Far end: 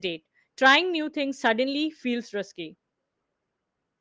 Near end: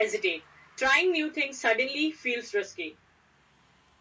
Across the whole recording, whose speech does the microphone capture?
echo only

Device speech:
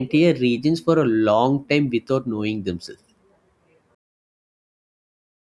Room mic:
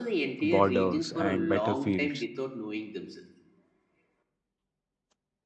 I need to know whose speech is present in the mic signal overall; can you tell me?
both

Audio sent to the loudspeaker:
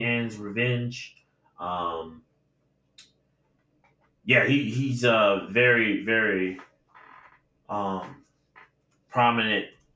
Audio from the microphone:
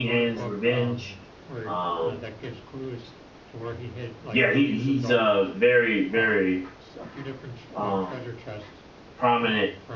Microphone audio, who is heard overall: both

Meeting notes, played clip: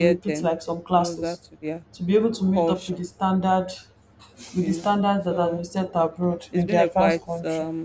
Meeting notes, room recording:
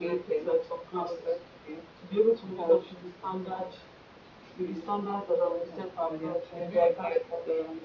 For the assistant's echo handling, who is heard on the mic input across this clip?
both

